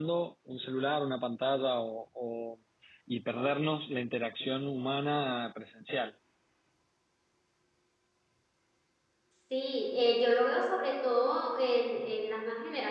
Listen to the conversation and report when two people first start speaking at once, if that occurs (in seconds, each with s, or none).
none